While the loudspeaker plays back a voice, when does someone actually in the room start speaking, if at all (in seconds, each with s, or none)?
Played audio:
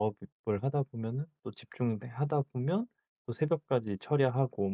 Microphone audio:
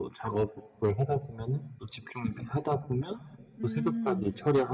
3.6 s